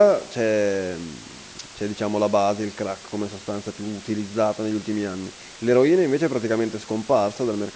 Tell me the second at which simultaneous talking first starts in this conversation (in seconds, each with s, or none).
none